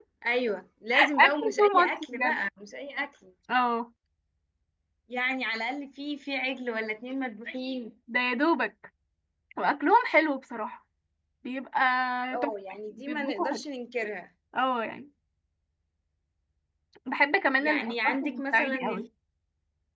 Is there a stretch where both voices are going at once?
Yes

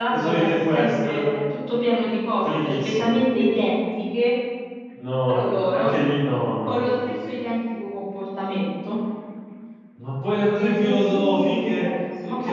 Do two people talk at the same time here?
Yes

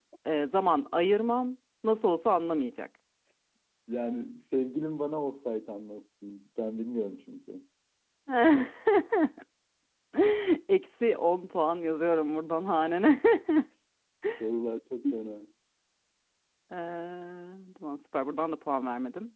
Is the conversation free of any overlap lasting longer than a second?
Yes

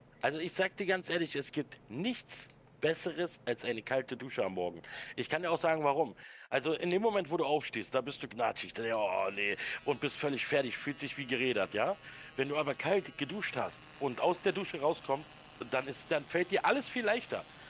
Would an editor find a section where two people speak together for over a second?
No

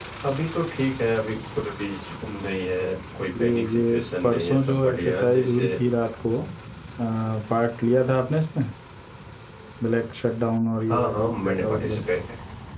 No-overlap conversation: No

